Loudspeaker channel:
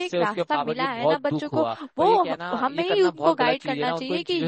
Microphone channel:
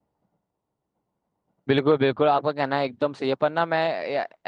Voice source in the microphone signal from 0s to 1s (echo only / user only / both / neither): neither